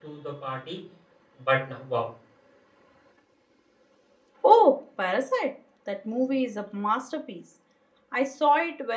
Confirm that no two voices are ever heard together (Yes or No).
Yes